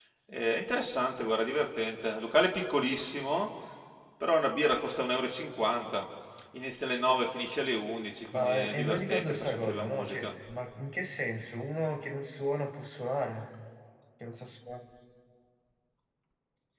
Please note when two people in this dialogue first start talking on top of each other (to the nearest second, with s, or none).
8 s